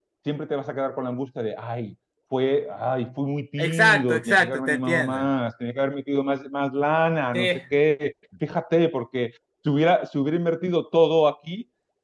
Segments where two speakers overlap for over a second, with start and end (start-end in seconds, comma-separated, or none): 3.6-5.3